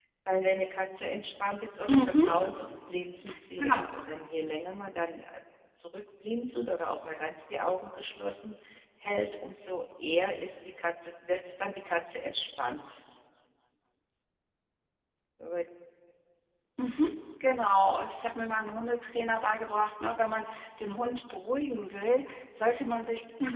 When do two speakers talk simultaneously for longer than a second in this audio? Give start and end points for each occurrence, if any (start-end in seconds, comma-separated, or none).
none